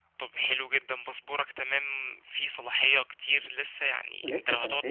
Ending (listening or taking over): listening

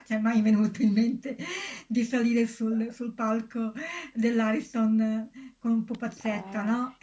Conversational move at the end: listening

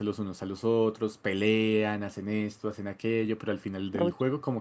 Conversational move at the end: listening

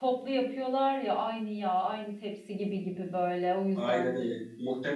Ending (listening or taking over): taking over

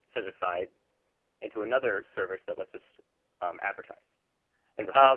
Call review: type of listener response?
taking over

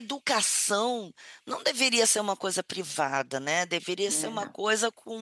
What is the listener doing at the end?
listening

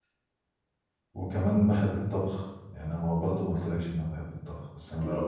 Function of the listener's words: taking over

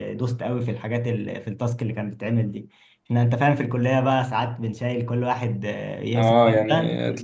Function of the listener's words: taking over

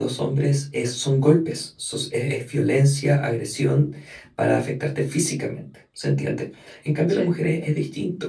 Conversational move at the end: listening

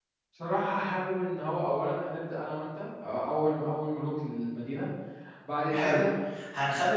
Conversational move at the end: taking over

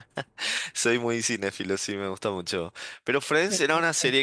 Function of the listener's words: listening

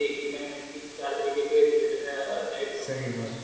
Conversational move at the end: listening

